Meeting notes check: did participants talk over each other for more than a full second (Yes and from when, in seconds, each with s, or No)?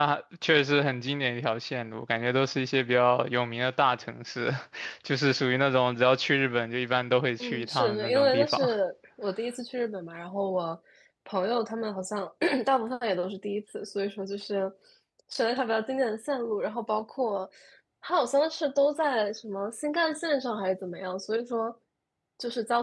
Yes, from 7.4 s